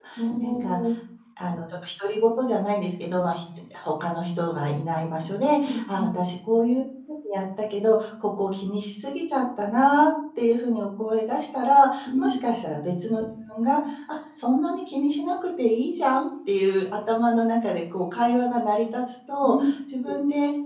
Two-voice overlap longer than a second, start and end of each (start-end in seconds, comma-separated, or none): none